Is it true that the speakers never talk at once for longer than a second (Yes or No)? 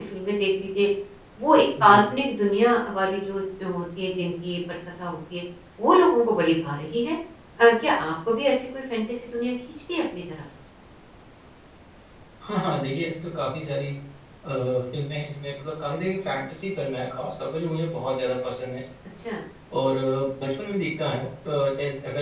Yes